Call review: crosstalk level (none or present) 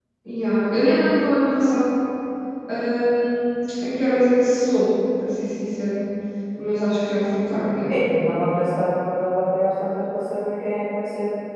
none